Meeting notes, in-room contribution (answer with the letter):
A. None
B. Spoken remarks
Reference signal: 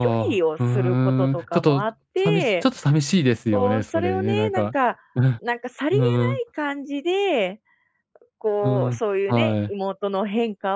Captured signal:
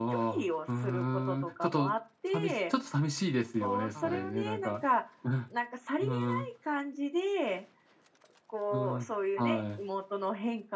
B